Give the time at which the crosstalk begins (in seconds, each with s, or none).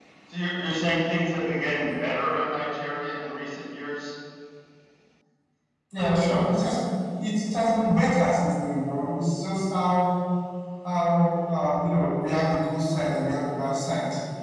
none